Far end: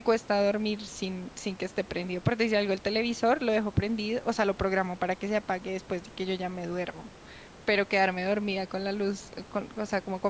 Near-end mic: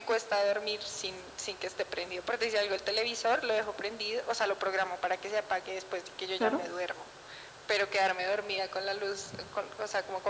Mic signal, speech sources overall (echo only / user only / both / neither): both